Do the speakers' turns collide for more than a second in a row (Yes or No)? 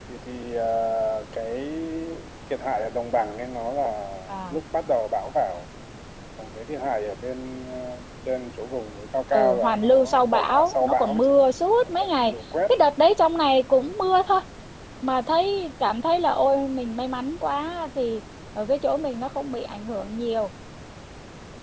Yes